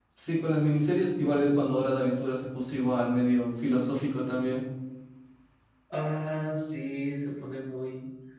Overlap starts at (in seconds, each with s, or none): none